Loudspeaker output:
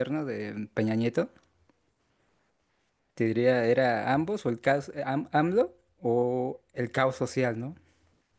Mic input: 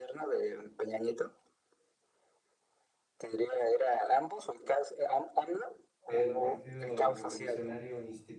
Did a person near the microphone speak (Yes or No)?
Yes